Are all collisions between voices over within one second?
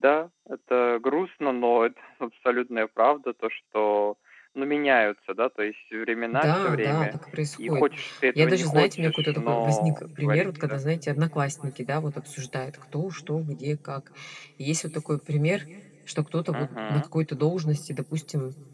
No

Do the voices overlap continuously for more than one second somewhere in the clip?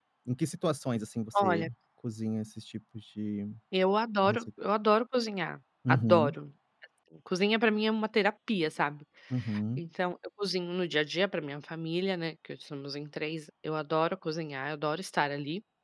No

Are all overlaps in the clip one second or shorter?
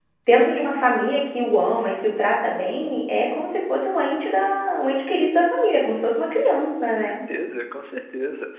Yes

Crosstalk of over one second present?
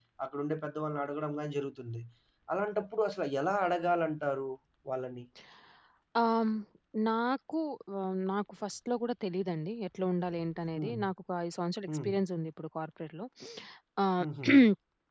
No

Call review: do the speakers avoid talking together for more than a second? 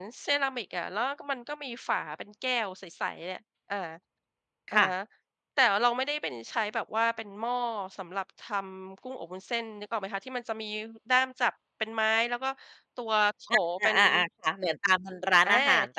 Yes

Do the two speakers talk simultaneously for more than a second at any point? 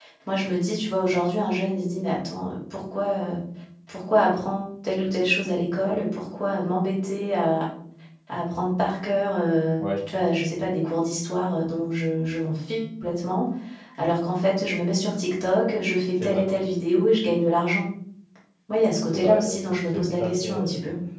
Yes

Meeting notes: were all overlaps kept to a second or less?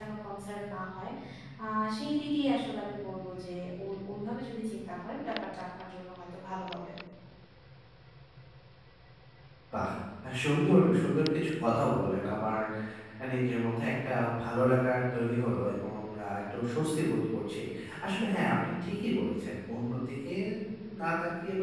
Yes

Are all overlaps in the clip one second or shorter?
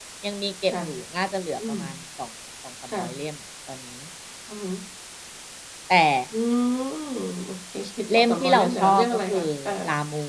No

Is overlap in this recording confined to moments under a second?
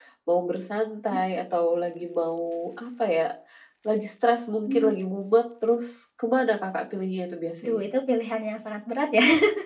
Yes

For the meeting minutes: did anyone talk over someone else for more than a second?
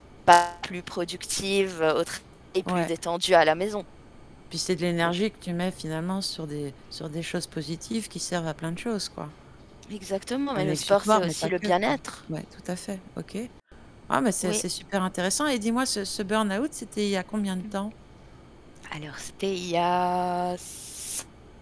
Yes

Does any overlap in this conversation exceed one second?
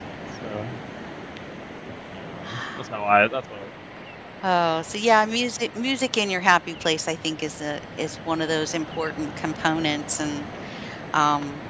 No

